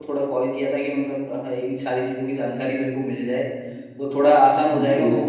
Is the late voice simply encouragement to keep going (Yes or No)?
Yes